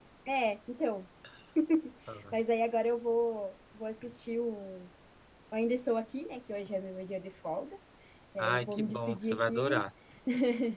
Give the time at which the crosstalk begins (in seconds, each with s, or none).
8.4 s